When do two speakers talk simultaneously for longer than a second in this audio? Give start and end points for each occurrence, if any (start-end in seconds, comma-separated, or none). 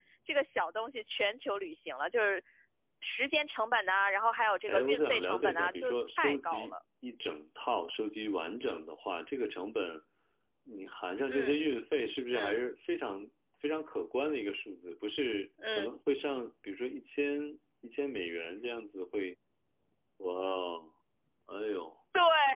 4.7-6.7